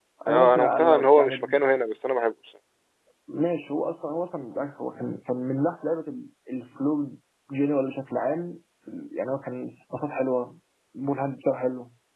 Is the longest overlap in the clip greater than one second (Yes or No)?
Yes